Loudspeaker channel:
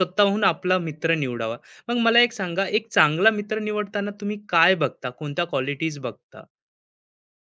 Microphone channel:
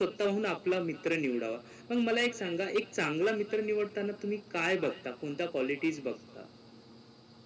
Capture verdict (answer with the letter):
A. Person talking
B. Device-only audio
B